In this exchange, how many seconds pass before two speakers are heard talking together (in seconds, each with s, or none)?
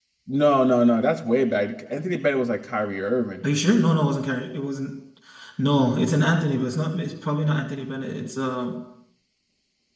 none